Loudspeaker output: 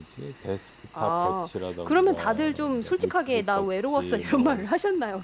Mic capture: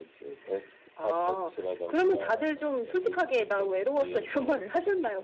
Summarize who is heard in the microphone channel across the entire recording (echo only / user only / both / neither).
echo only